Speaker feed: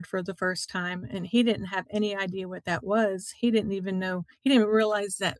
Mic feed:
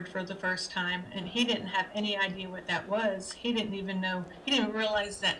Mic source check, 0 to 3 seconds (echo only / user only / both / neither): echo only